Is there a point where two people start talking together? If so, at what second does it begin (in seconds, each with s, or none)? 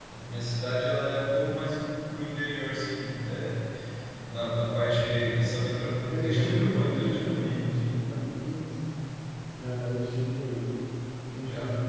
6.2 s